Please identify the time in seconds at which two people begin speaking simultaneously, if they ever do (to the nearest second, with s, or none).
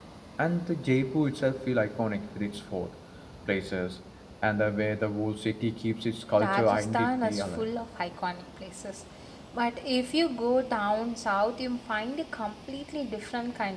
6 s